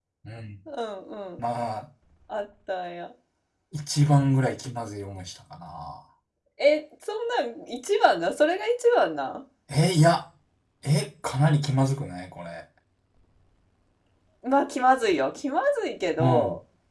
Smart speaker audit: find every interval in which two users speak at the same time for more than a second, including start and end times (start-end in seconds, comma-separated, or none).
none